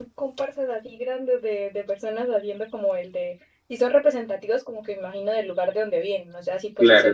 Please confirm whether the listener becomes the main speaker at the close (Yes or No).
No